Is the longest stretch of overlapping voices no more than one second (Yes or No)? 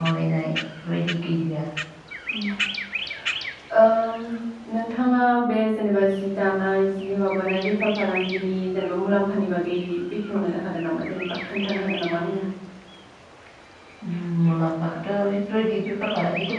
Yes